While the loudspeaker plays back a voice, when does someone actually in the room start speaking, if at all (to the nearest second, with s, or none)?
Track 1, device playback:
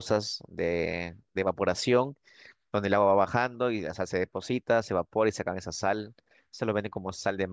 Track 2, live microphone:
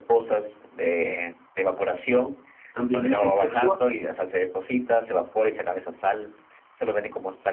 3 s